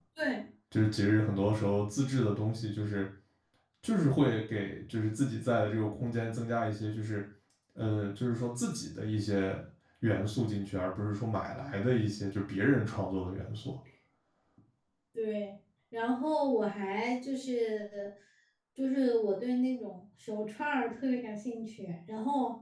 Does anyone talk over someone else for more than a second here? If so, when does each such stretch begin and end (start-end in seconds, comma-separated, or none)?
none